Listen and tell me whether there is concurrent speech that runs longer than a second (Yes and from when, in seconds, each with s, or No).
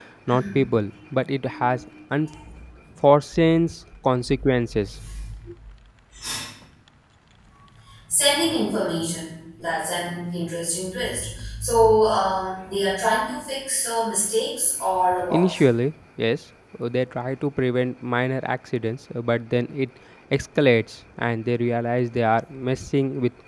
No